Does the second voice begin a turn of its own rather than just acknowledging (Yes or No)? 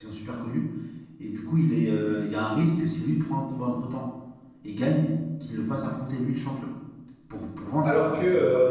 Yes